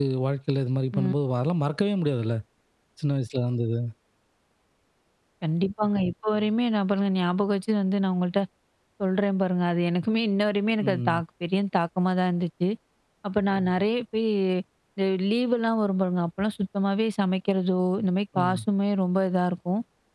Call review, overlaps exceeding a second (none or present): none